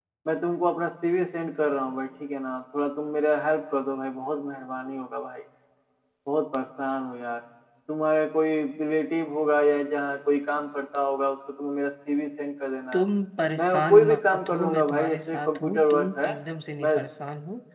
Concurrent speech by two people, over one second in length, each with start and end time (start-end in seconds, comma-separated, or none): 13.6-16.3